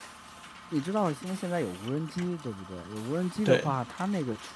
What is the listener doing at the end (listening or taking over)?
listening